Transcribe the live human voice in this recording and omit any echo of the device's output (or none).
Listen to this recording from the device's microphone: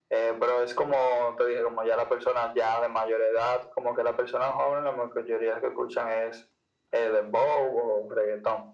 none